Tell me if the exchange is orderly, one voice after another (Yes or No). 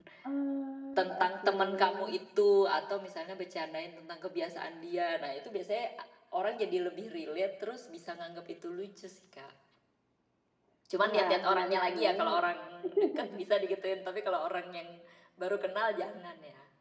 No